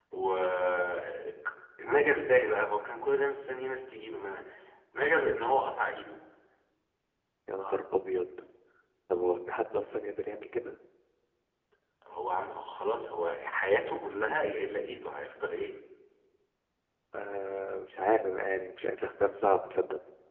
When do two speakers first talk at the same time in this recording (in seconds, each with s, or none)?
none